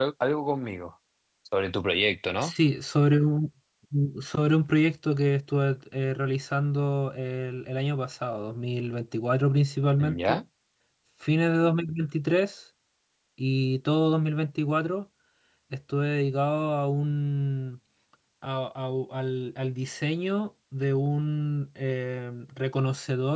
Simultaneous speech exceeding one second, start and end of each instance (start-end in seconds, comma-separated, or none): none